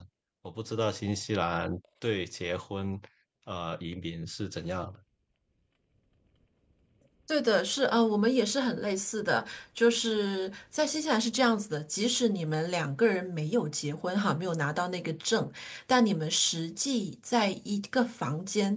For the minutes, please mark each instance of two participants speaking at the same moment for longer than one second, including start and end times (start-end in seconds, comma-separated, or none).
none